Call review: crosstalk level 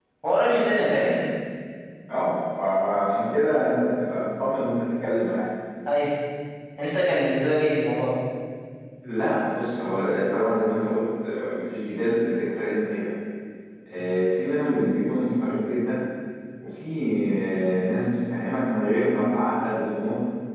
none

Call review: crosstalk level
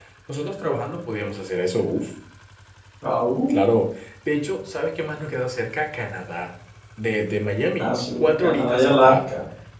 present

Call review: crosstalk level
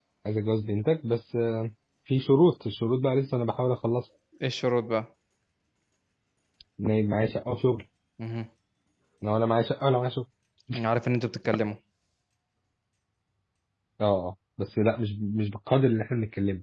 none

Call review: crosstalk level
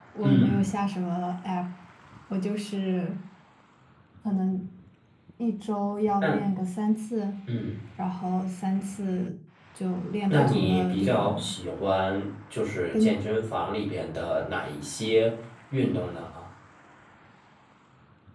present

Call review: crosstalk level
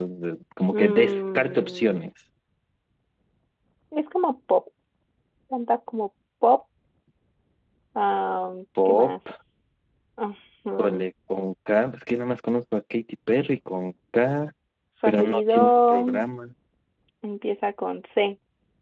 present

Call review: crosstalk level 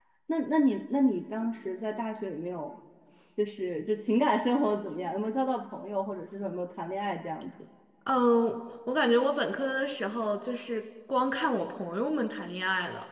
none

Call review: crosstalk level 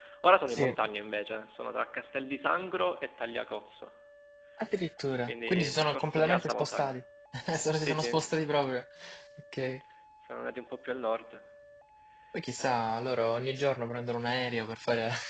present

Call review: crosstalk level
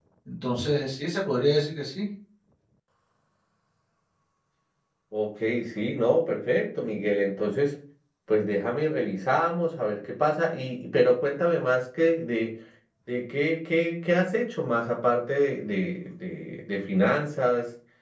none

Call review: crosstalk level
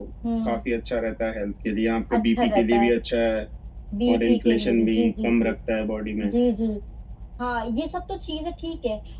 present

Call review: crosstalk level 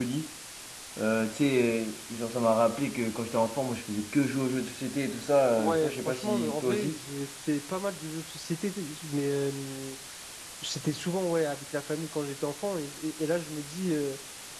present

